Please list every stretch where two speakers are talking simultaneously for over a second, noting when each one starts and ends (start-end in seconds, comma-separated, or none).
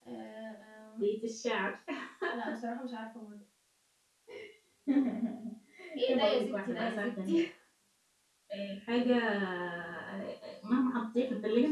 6.1-7.4